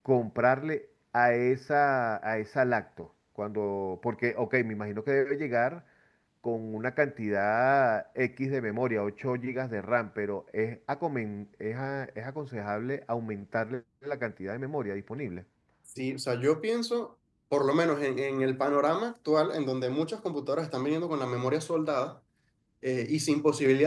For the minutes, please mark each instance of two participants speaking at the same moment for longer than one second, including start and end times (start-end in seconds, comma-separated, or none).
none